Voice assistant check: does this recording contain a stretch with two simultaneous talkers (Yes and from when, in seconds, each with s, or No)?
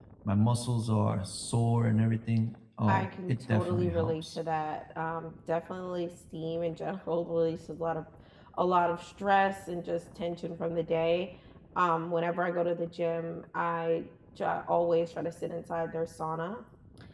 Yes, from 2.9 s